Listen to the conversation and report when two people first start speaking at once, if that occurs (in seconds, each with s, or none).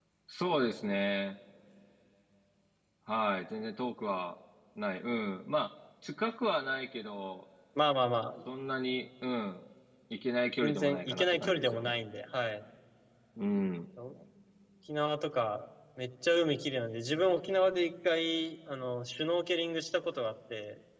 10.6 s